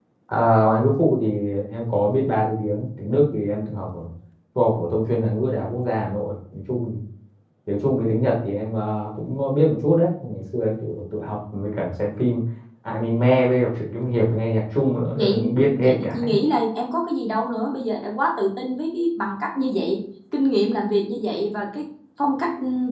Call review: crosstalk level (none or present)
present